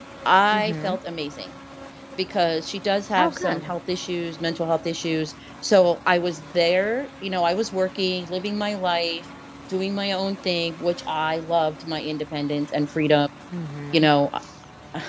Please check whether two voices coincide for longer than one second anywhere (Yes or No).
No